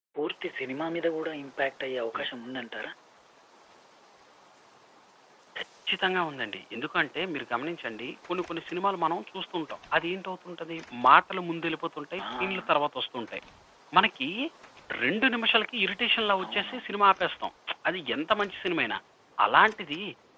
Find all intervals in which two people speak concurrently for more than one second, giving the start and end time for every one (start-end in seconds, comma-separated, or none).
none